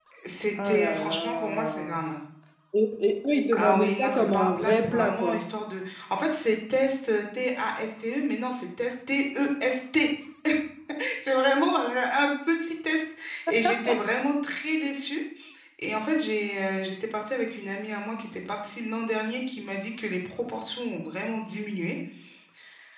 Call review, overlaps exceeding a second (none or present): present